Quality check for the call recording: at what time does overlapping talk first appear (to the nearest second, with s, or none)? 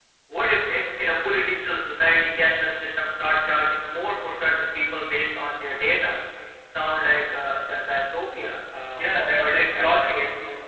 9 s